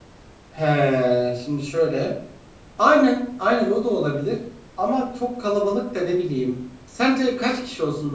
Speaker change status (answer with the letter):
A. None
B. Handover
A